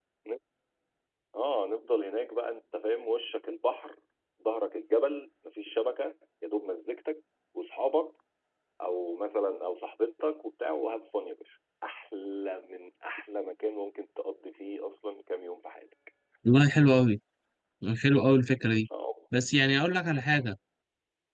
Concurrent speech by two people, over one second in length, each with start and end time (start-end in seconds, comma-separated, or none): none